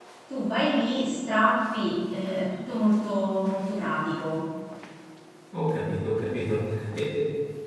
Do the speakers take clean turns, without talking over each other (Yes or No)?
Yes